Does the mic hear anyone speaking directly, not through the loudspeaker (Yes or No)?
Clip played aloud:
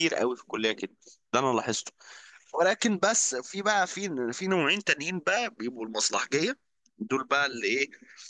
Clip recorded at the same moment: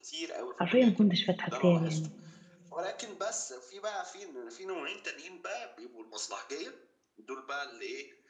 Yes